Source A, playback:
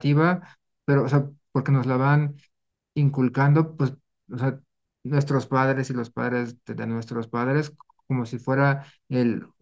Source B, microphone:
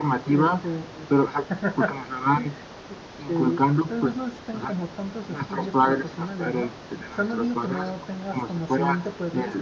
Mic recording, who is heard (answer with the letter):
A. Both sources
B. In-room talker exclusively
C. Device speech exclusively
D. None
A